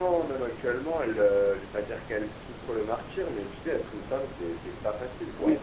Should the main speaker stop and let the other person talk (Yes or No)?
Yes